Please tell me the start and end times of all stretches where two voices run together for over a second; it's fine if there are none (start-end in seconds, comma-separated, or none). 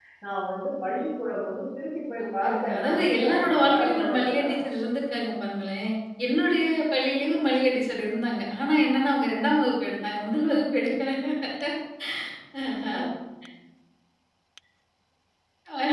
2.2-4.7